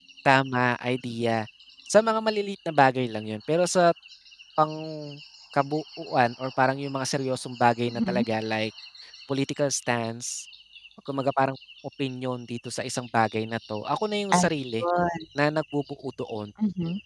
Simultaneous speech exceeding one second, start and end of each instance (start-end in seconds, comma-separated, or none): none